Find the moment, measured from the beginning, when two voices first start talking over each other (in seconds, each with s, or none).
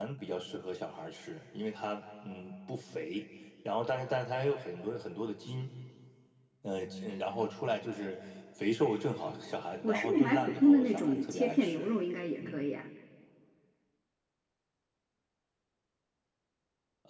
9.8 s